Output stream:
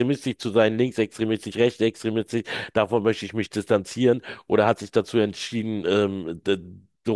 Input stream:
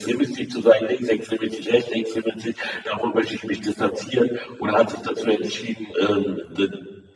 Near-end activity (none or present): none